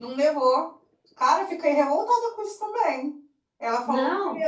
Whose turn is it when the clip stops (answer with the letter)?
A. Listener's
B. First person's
B